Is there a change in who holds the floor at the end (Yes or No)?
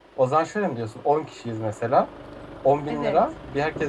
No